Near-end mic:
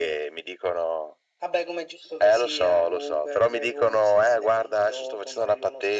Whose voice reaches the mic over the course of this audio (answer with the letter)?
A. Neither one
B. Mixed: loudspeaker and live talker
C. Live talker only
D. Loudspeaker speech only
D